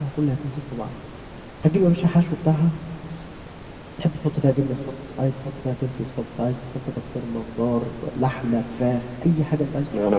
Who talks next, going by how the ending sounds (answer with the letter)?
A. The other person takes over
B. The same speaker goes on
A